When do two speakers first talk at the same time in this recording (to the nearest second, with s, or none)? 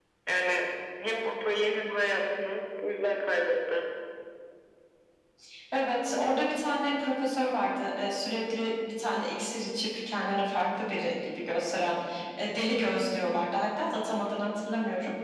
none